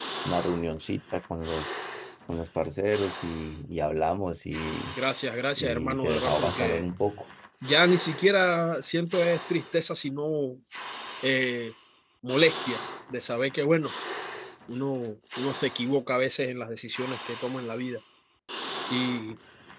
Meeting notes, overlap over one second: present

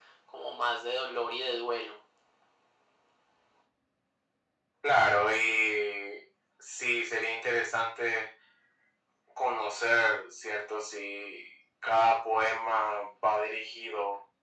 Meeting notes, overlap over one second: none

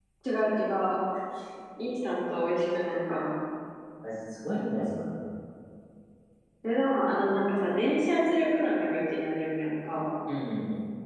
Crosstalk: none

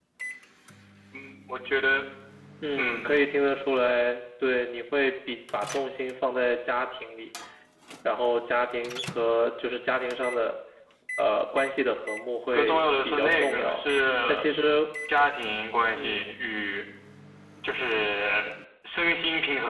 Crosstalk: present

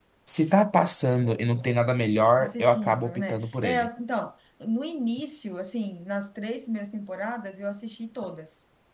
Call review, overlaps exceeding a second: present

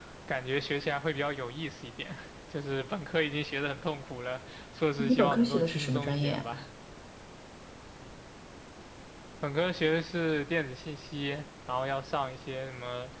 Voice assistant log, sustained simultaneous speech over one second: present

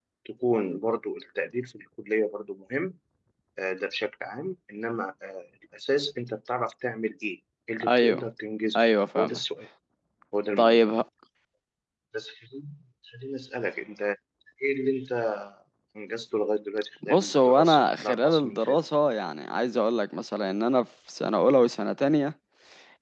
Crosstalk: present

